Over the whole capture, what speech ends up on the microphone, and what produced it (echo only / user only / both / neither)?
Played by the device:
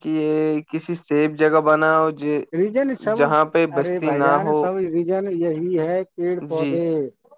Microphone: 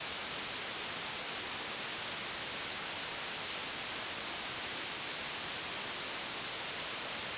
neither